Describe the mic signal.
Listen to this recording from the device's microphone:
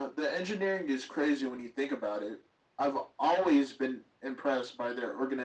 echo only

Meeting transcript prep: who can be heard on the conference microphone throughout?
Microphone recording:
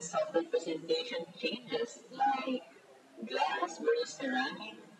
echo only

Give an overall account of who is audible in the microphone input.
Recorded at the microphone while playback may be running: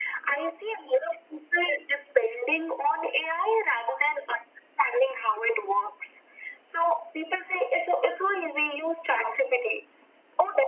echo only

